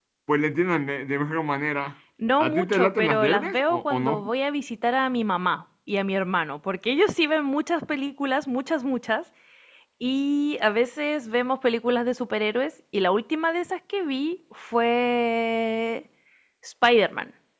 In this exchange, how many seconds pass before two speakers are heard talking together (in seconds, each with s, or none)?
2.4 s